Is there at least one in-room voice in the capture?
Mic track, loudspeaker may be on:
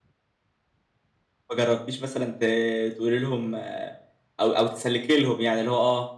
Yes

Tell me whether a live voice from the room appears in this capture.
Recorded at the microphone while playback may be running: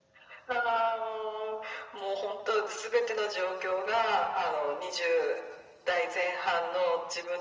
No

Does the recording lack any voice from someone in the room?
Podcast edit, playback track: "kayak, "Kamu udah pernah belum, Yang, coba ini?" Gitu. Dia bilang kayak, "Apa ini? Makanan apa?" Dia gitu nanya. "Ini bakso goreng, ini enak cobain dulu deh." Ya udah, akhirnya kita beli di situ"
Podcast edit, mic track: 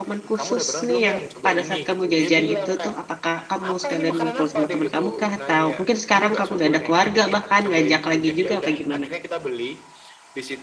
No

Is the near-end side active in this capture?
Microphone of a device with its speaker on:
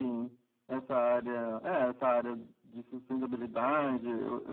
No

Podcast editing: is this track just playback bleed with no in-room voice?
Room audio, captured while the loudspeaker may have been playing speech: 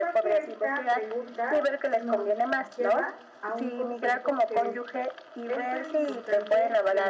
No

